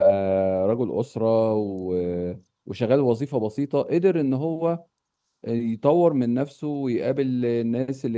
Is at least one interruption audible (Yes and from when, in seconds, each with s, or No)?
No